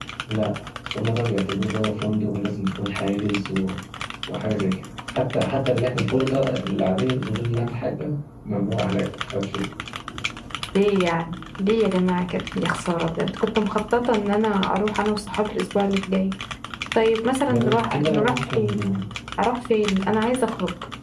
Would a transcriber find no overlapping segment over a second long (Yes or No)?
No